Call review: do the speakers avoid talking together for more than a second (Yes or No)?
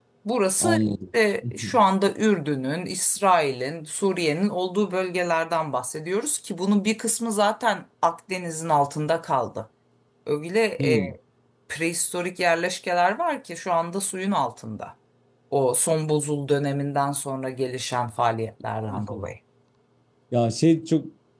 Yes